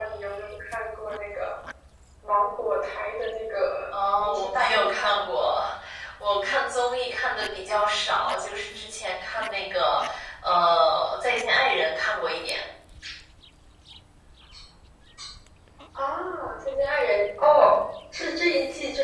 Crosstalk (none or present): present